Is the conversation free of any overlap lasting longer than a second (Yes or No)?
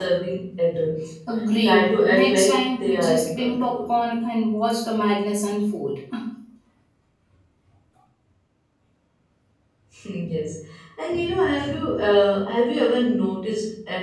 No